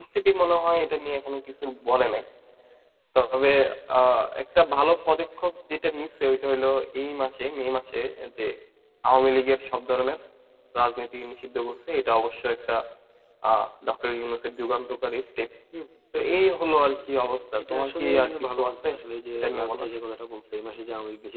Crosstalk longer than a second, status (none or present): present